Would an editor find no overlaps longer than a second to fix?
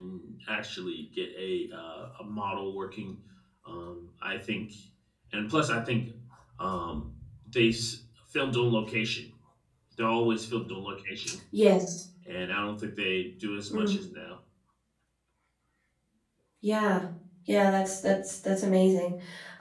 Yes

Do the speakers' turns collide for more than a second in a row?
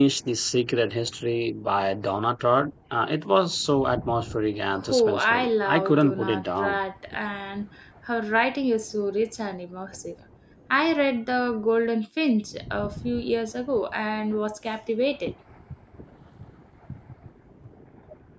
Yes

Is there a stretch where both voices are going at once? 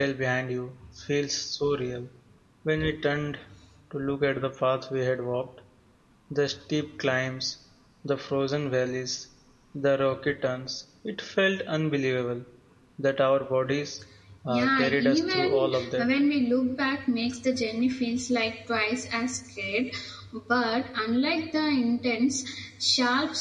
Yes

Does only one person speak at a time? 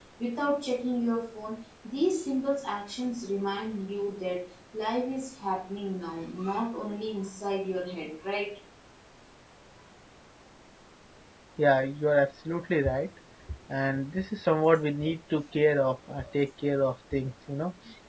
Yes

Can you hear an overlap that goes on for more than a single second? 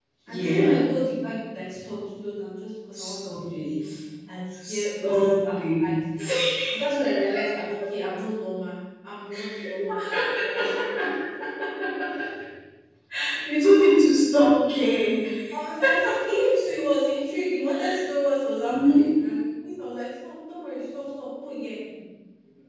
Yes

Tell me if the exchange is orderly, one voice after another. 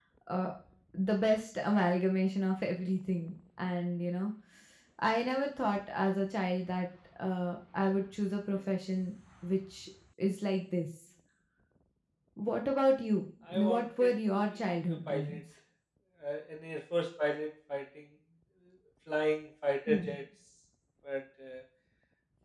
No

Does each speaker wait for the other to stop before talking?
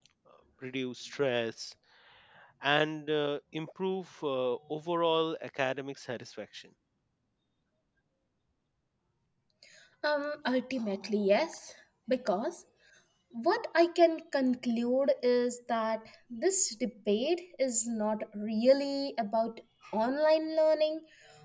Yes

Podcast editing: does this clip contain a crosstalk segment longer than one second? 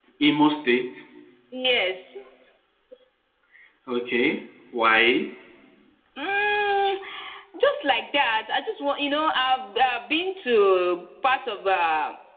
No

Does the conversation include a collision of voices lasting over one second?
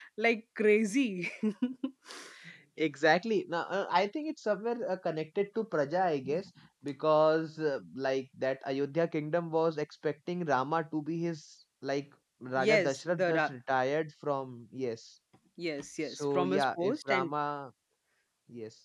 Yes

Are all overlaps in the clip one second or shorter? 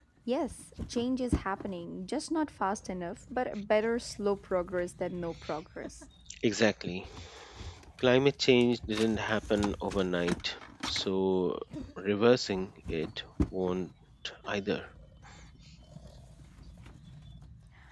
Yes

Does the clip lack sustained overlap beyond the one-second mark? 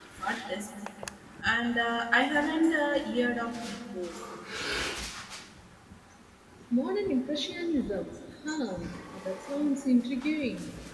Yes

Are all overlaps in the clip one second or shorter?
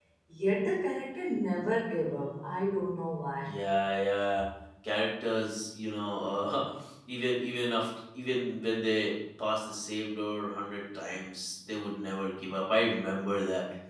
Yes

